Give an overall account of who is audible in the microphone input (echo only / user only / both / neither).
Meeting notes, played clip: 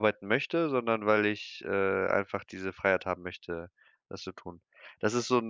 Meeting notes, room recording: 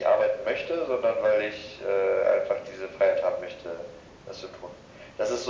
echo only